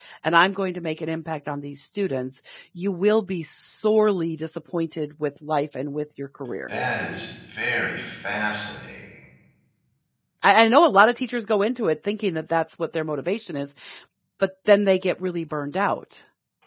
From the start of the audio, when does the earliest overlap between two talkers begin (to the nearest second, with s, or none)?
none